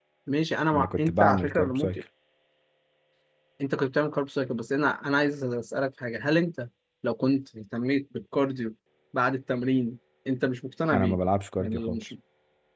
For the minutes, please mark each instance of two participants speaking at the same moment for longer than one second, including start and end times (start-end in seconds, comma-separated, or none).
0.8-2.0